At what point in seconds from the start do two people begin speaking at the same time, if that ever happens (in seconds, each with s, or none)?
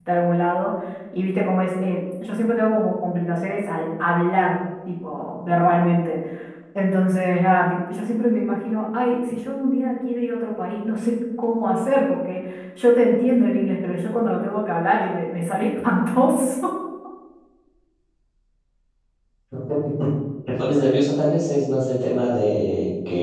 none